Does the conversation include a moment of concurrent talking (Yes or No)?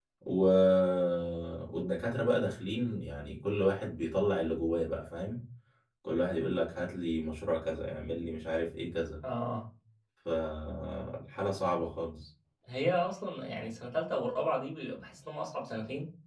No